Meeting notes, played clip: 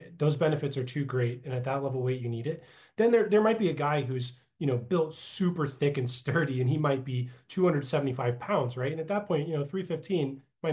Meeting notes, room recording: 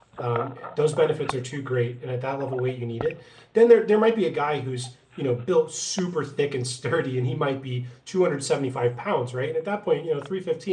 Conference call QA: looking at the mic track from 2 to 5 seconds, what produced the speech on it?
echo only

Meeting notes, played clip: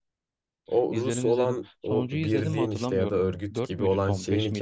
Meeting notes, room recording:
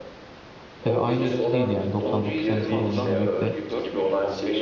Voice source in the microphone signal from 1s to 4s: both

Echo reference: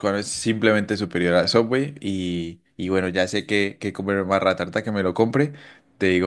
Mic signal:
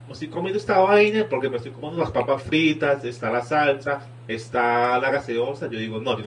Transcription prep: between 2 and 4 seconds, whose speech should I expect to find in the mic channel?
user only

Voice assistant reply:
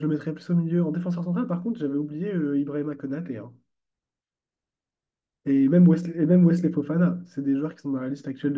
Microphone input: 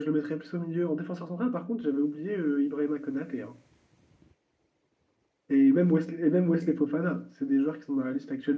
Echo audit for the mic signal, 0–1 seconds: echo only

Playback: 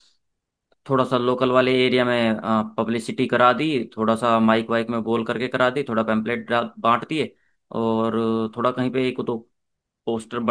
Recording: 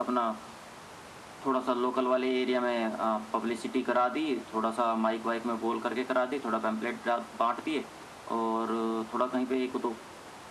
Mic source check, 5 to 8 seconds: echo only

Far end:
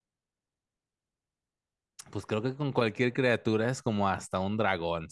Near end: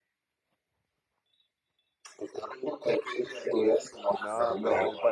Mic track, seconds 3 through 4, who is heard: echo only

